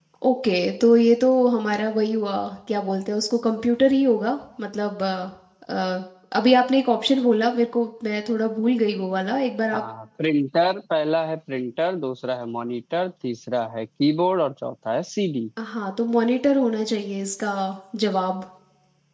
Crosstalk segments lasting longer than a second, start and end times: none

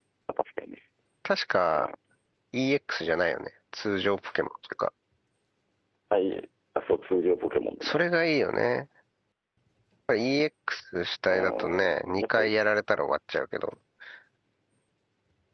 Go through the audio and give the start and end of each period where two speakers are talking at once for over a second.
11.3-12.5

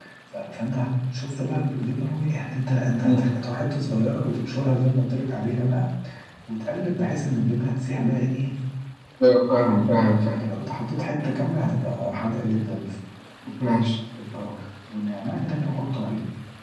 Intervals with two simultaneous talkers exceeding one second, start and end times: none

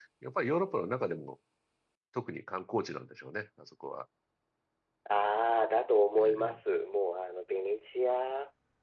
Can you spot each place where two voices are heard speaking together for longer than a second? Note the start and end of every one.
none

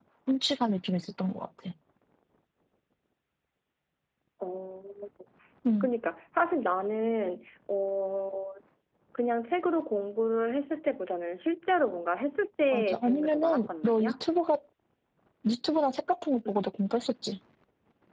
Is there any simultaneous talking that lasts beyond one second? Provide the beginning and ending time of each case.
12.7-14.1

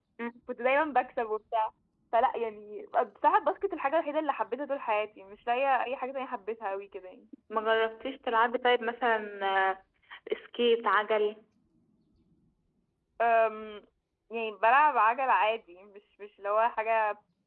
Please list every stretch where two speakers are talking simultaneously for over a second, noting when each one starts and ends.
none

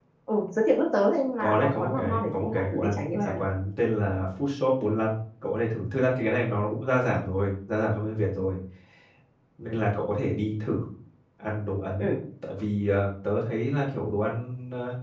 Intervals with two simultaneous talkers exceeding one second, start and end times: 1.4-3.4

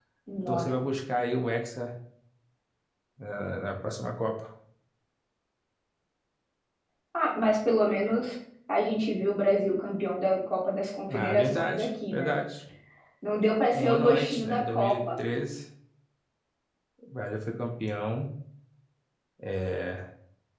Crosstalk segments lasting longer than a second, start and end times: 11.1-12.4, 13.7-15.0

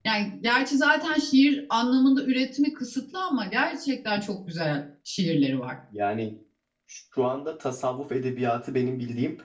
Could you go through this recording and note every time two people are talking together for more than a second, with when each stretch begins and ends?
none

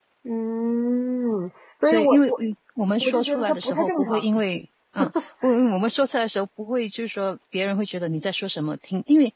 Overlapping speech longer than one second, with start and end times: 3.0-4.2

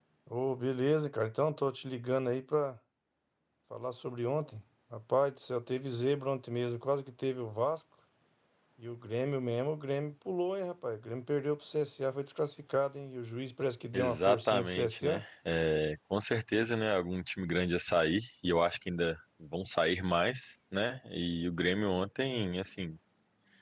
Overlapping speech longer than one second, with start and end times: 13.9-15.2

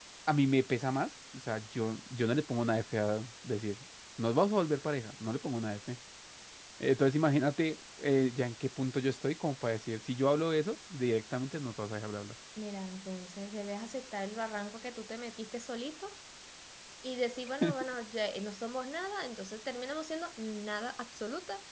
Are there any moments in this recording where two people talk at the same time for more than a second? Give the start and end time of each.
none

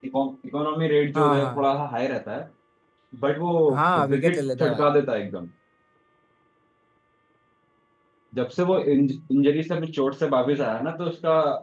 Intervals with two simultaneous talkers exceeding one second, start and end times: 3.7-4.9

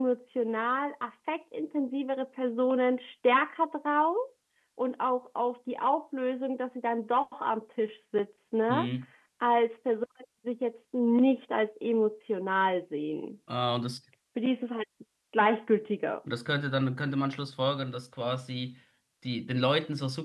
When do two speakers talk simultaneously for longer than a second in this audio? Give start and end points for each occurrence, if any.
none

